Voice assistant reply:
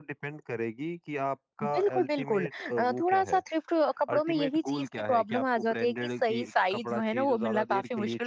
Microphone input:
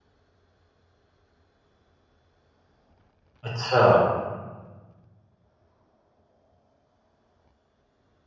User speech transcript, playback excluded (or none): अच्छा,